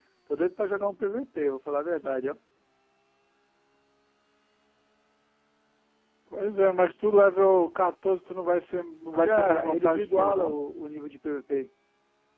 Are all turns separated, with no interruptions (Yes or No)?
No